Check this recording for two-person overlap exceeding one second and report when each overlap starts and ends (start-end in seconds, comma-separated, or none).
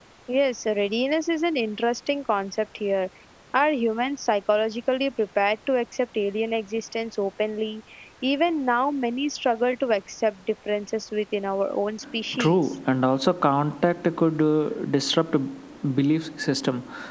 none